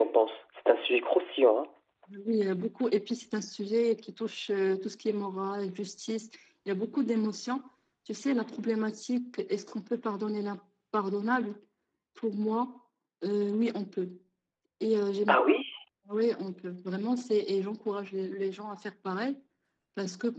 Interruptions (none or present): none